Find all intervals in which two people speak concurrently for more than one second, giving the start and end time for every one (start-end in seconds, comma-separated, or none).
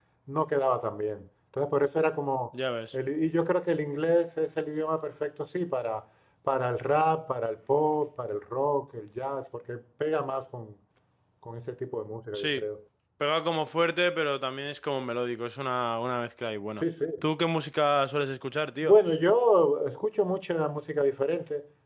none